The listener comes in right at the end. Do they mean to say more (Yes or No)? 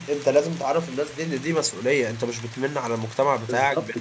Yes